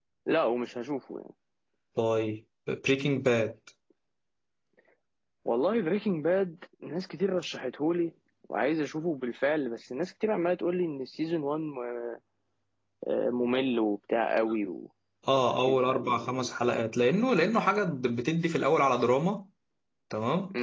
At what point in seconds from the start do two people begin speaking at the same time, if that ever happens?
15 s

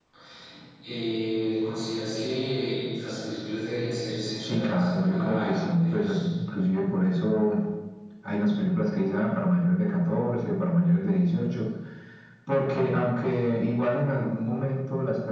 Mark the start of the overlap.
4 s

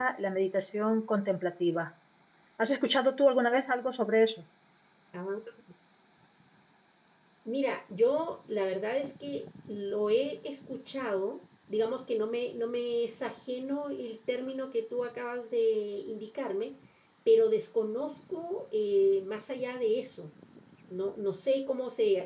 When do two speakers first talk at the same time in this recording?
none

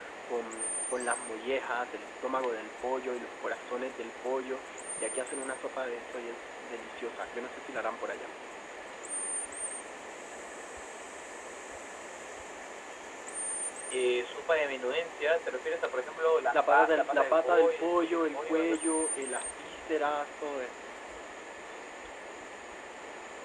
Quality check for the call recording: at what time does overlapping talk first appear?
17 s

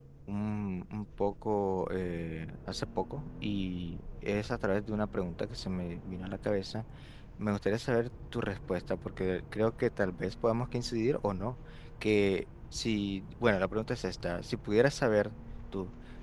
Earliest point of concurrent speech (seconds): none

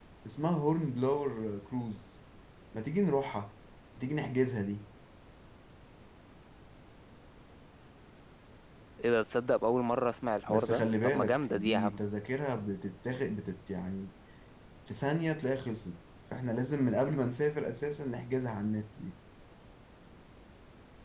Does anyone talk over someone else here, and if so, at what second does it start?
10 s

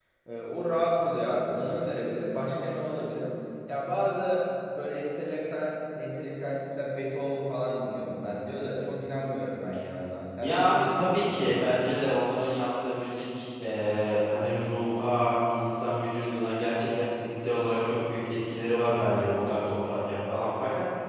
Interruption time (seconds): 10 s

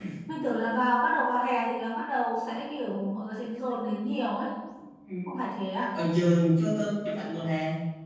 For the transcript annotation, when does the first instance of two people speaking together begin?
none

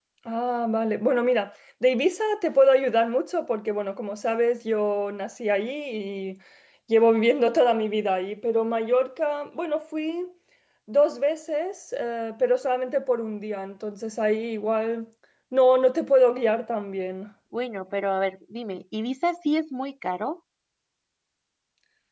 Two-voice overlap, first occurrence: none

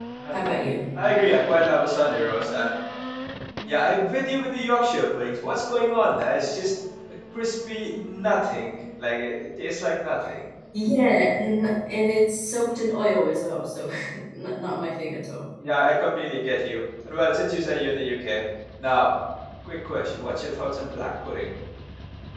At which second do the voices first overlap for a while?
none

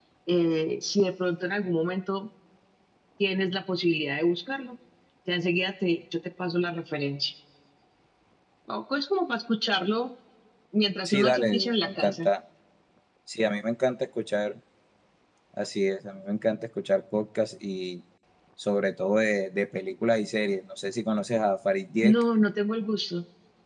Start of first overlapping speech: 11 s

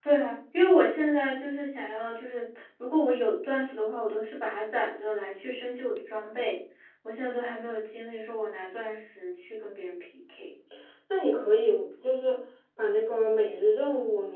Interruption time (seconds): none

